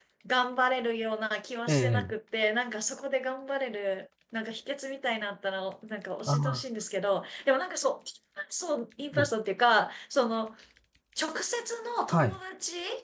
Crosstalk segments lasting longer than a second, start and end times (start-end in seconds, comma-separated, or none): none